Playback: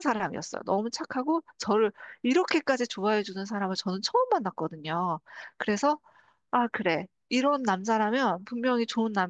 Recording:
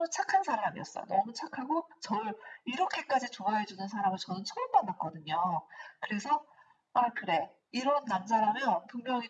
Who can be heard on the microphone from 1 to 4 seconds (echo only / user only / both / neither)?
echo only